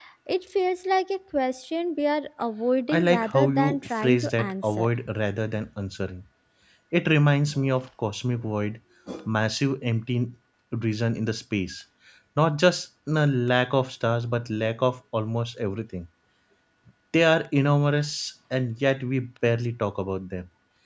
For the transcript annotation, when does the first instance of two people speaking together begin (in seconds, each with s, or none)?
2.9 s